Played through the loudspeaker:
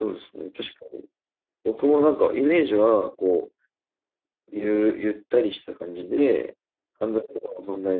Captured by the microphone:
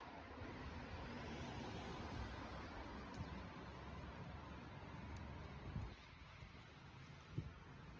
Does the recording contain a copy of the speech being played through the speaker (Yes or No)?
No